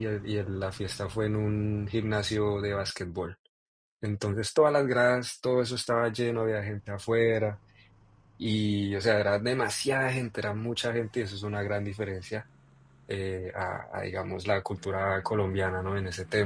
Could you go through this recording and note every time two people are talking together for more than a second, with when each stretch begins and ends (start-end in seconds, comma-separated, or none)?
none